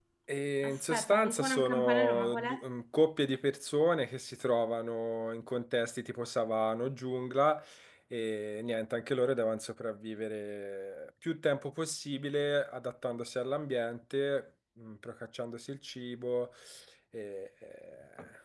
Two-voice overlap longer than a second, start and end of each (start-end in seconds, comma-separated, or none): 0.7-2.6